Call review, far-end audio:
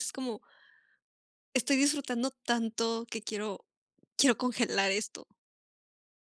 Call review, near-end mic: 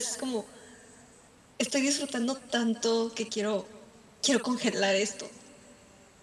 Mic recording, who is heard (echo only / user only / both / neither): echo only